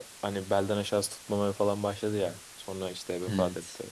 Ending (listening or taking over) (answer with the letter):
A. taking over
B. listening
B